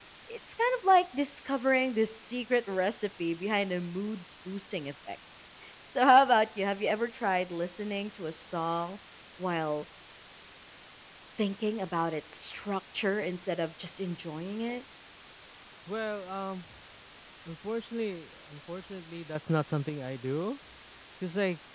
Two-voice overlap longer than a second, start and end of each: none

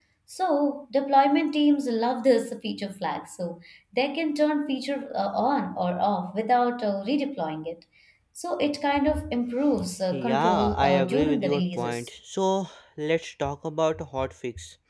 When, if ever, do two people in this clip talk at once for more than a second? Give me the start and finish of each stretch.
10.1-12.1

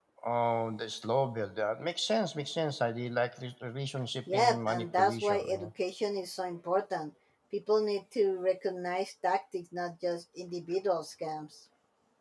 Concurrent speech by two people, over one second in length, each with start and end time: 4.3-5.7

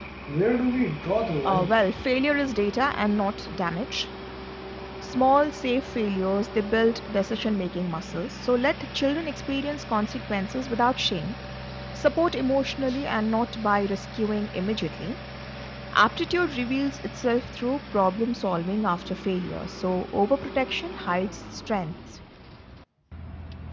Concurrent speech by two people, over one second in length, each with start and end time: none

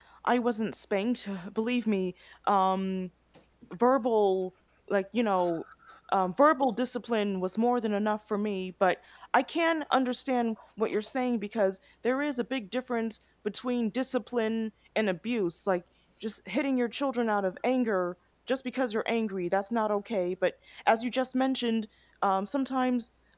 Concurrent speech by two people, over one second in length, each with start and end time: none

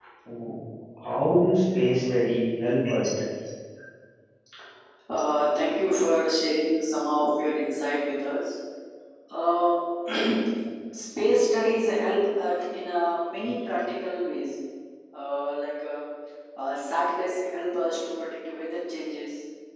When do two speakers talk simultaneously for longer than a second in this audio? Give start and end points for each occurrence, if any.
none

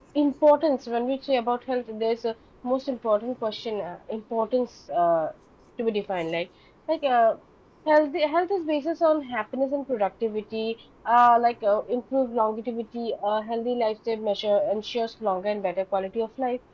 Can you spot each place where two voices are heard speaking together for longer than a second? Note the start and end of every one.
none

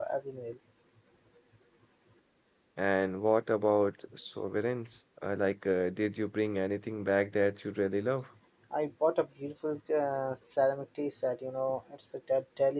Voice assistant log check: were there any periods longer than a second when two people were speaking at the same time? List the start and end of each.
none

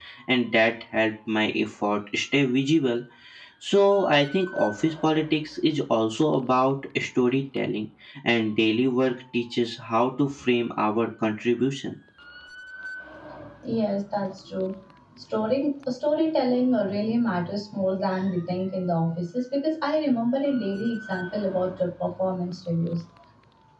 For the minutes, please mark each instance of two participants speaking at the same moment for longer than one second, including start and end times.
none

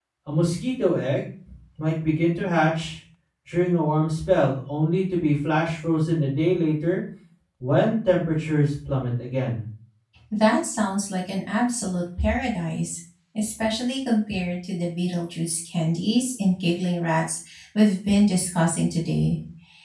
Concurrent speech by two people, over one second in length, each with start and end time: none

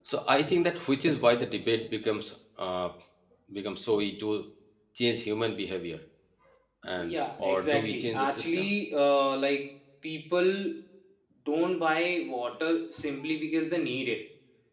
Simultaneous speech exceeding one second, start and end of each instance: 7.0-8.7

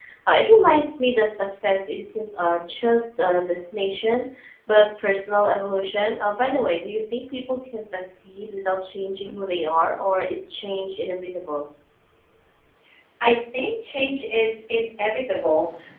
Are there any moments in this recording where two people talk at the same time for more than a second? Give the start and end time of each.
none

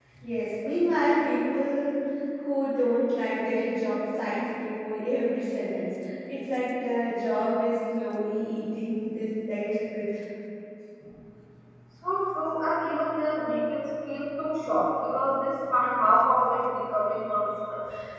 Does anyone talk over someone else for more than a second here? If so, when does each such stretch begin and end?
none

